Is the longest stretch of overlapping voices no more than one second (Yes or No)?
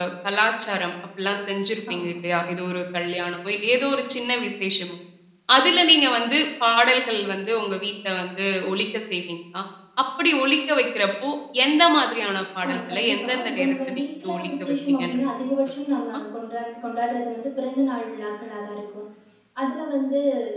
No